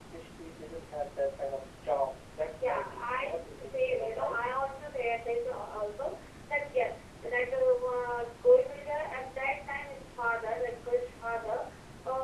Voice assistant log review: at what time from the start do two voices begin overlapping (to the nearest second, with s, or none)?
3 s